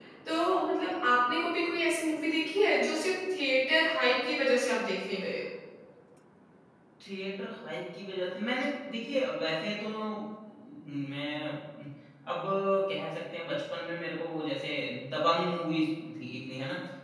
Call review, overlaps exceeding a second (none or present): none